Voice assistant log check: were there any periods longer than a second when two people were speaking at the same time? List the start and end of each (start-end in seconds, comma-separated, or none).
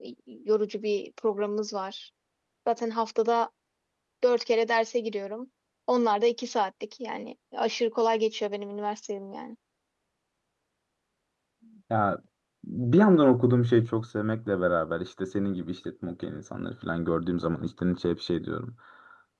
none